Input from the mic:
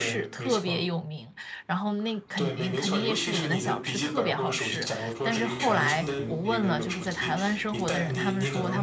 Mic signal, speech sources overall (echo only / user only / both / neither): both